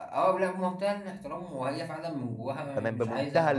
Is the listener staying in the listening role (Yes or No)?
No